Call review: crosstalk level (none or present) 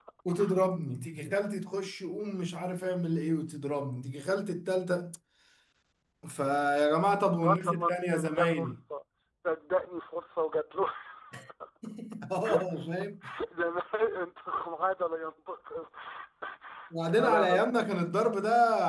present